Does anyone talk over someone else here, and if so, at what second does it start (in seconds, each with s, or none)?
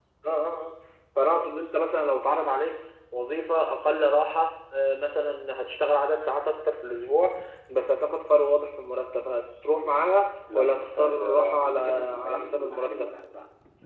10.5 s